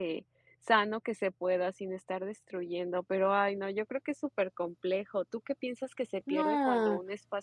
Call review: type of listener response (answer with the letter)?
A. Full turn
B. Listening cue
B